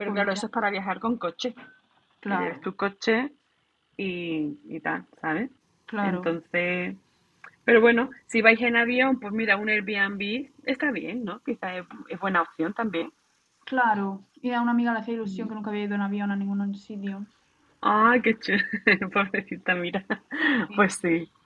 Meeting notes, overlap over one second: none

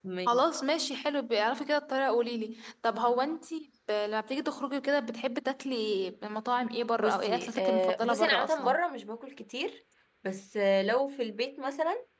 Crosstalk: present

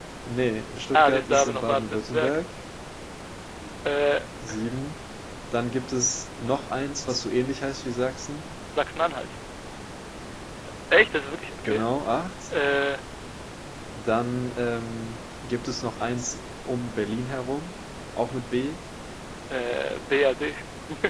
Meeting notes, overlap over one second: present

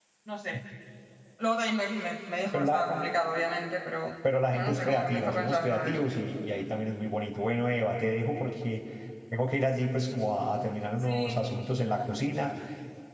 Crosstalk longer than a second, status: present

